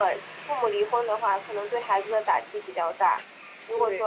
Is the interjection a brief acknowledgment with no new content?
Yes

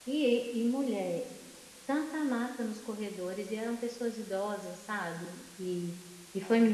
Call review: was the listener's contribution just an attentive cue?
Yes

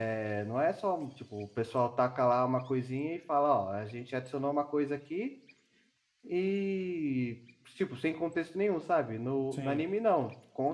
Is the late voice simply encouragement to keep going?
Yes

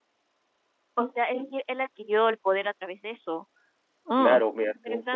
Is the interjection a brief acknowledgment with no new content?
No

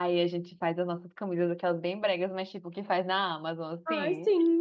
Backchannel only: No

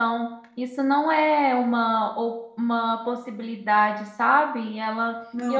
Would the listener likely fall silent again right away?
Yes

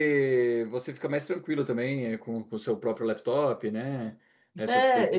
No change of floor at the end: No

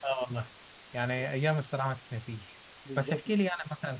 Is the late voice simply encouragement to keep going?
Yes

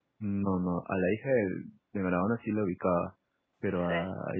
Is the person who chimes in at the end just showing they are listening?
Yes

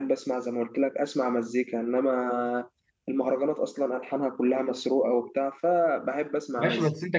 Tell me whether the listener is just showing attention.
No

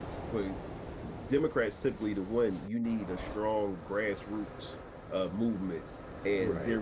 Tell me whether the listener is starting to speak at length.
No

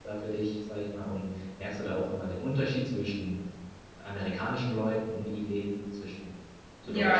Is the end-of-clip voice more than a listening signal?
Yes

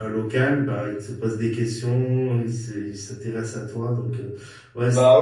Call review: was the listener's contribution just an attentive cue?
No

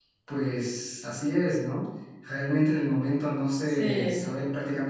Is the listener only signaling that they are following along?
Yes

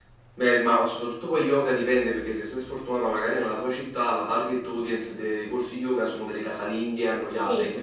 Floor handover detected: Yes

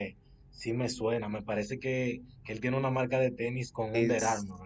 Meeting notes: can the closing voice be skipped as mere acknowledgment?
No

